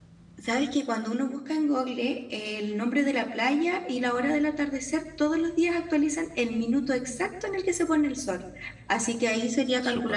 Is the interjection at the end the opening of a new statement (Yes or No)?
No